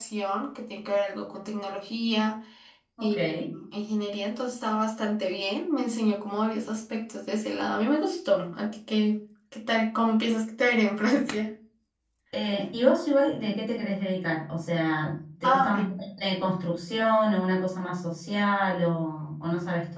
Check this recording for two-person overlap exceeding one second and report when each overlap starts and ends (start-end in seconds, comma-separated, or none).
none